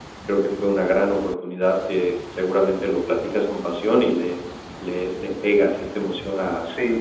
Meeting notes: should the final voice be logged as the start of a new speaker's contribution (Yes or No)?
Yes